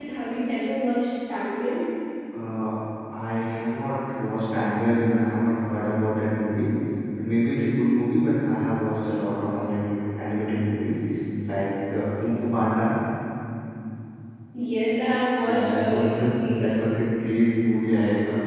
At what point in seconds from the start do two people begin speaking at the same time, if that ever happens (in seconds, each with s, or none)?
15.4 s